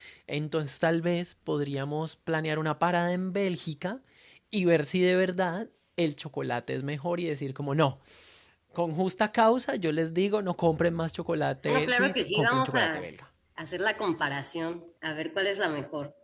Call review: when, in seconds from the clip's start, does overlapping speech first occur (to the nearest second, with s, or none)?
12 s